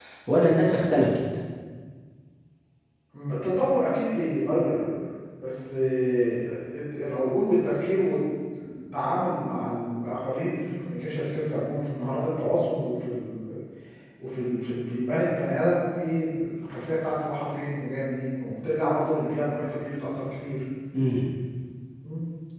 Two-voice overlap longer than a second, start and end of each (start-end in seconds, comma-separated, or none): none